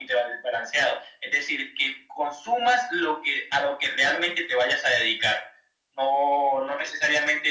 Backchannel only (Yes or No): Yes